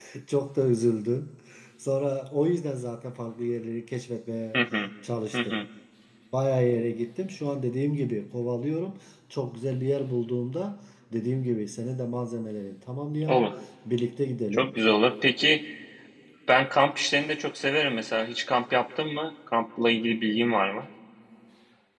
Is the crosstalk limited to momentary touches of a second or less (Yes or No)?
Yes